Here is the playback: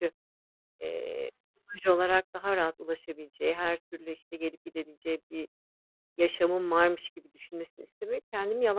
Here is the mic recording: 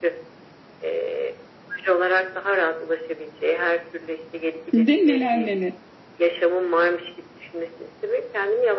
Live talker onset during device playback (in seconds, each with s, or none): 4.7 s